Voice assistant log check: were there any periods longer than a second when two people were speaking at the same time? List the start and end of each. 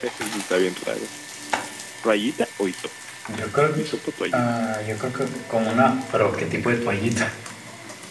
none

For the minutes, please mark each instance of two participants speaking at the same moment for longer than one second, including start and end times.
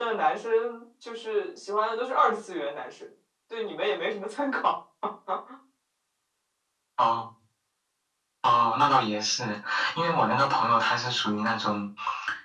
none

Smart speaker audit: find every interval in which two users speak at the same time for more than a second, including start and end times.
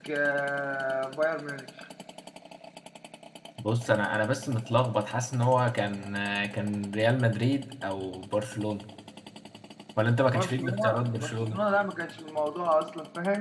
10.3-11.6

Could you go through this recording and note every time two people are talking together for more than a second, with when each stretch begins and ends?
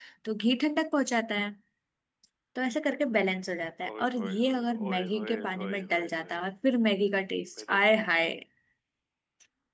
4.0-6.3

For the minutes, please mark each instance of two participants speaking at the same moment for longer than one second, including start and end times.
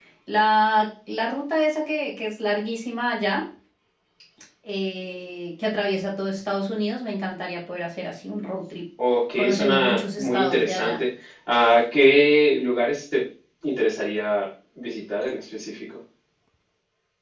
9.4-11.0

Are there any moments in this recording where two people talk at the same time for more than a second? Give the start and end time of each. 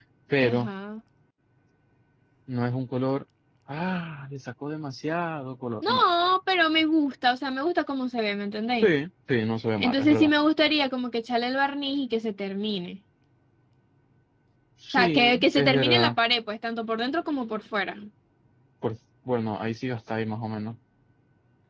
14.9-16.2

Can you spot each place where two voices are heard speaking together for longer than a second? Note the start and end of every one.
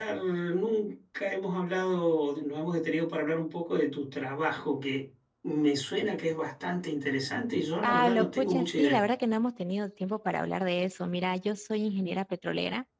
7.8-9.1

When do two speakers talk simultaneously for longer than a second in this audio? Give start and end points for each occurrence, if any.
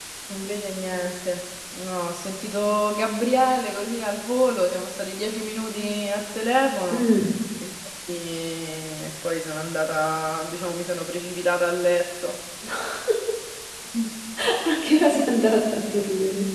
none

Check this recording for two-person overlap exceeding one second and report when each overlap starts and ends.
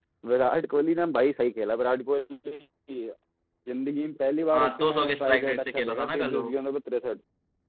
4.6-6.5

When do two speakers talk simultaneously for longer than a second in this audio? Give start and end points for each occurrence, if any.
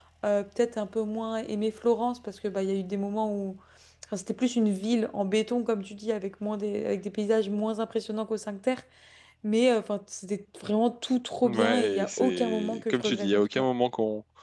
11.4-13.6

